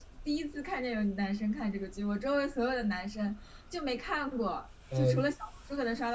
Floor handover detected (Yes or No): No